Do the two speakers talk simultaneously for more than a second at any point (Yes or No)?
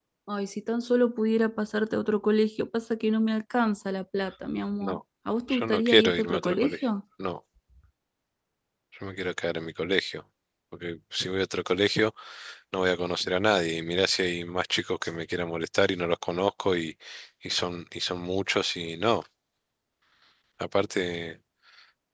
Yes